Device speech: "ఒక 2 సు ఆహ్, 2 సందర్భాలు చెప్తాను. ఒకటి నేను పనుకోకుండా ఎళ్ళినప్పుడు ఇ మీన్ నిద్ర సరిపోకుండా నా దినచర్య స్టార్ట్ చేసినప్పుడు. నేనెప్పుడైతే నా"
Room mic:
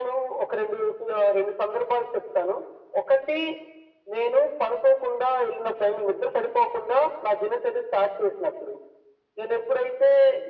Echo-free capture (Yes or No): No